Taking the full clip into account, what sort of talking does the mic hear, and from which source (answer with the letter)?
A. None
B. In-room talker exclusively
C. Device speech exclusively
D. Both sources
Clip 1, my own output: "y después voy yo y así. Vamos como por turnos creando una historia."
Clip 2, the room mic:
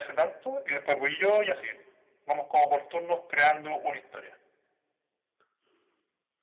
C